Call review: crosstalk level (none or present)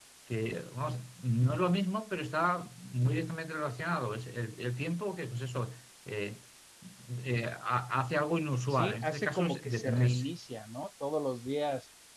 present